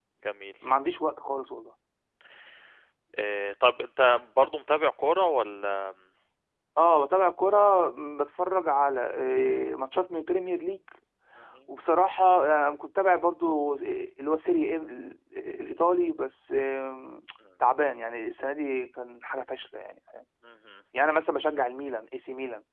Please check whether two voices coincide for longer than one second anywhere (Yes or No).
No